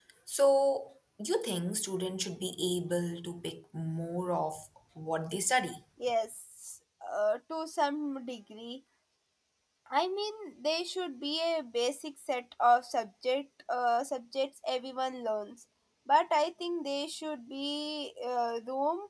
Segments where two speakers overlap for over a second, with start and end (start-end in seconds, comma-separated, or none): none